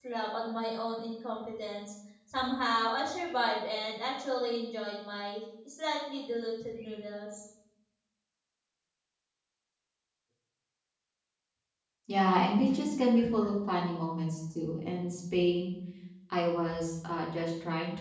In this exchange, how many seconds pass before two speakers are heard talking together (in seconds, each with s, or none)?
none